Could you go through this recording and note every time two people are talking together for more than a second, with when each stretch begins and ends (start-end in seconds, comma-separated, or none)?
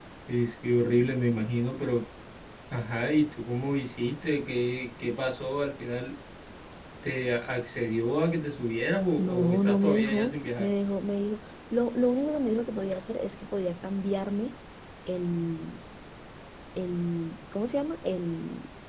9.2-10.7